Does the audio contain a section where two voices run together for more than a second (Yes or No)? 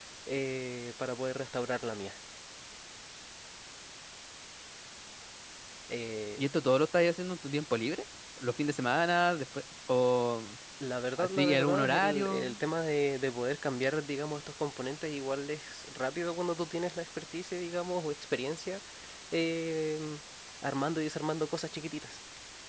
Yes